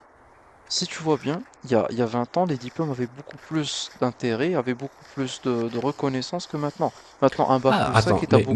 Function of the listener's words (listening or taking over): taking over